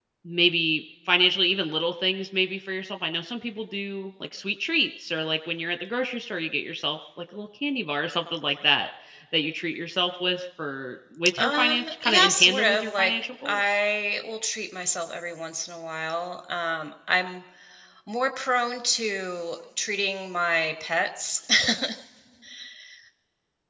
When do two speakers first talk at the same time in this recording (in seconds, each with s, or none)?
11.4 s